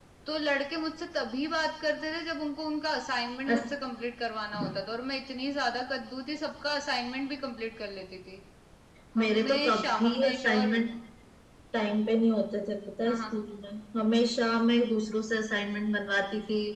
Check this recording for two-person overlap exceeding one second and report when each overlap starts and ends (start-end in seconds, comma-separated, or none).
9.2-10.7